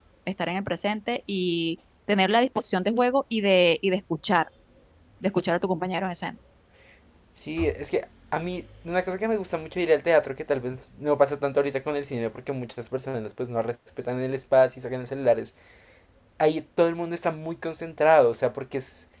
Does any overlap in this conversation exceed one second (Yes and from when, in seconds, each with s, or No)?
No